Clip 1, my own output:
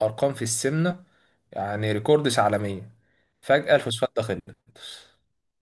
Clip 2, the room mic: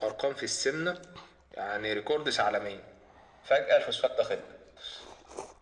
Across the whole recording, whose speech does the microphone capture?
echo only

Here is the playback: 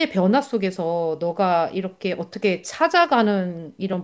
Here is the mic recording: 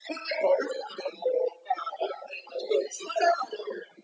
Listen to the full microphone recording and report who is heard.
echo only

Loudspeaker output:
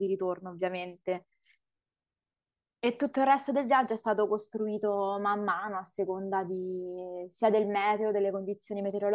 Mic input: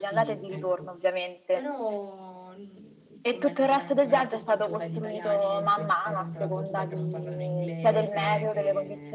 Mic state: both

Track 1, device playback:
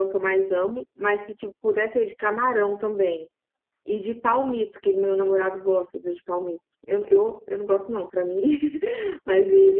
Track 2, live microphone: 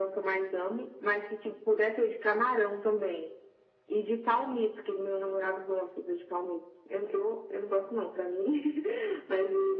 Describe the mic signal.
echo only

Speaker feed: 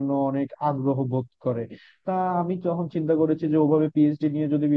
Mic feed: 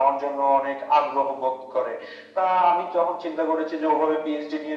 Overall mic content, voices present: echo only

